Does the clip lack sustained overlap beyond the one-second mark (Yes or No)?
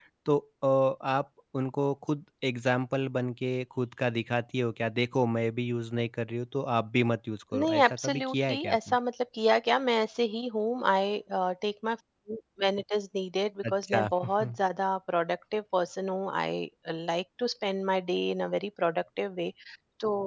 No